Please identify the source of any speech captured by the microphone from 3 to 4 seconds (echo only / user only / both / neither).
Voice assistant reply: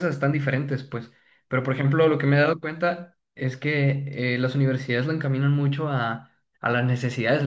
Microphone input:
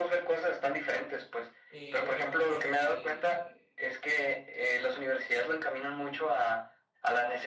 both